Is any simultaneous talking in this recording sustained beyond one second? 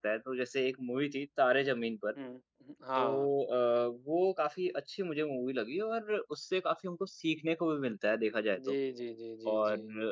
No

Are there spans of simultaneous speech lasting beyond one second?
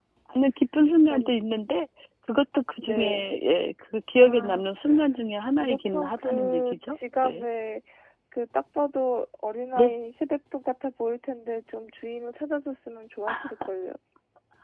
Yes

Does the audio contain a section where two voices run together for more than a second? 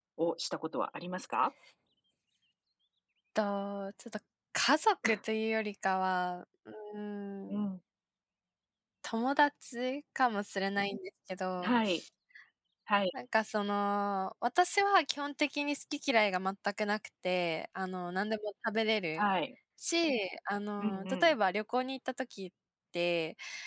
No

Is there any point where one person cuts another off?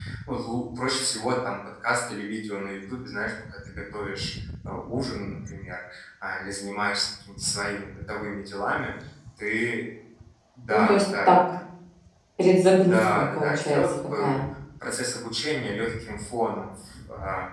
Yes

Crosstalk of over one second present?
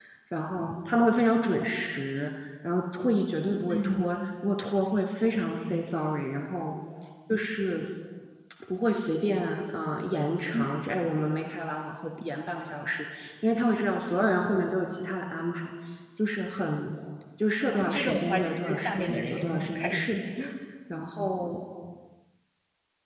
Yes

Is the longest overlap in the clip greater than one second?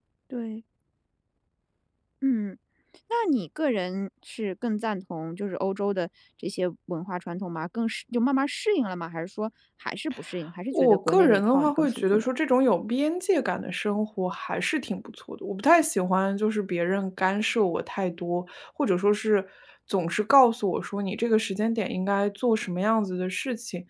Yes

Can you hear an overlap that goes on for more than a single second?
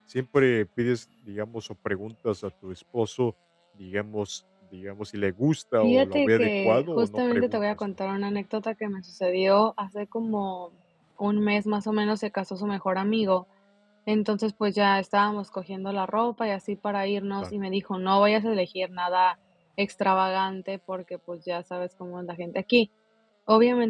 Yes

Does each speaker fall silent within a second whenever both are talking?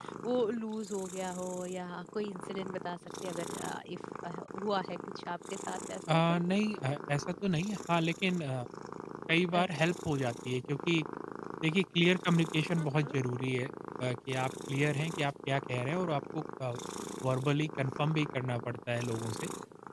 Yes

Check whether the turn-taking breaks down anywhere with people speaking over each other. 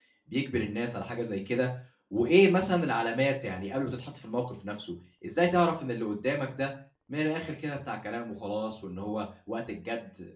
No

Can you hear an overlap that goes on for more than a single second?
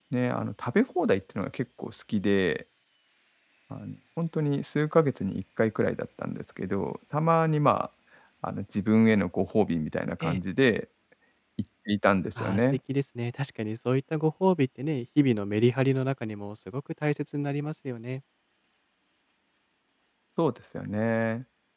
No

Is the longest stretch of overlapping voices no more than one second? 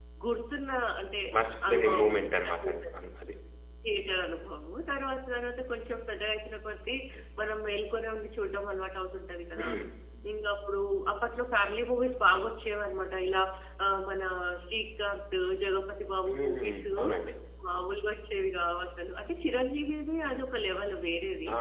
No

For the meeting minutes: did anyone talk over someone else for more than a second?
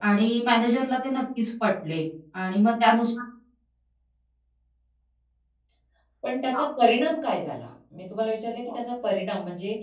No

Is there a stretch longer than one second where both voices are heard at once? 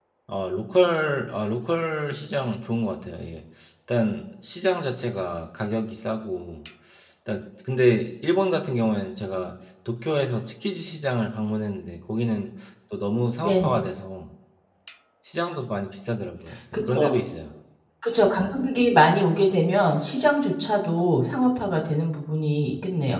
No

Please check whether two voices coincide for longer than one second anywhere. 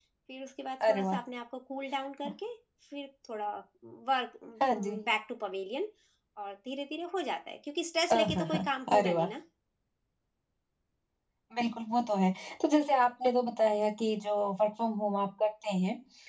No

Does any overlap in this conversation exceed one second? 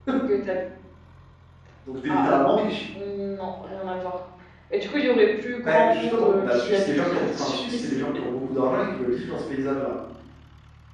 Yes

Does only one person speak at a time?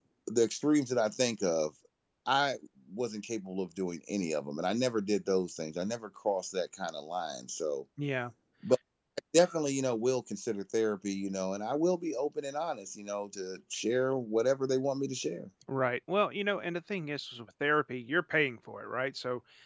Yes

